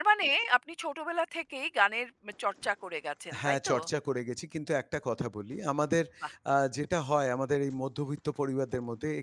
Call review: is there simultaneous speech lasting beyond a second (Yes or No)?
No